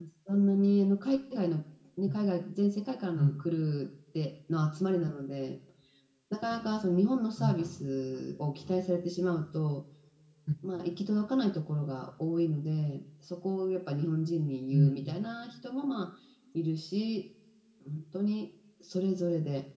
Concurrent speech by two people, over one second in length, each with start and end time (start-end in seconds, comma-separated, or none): none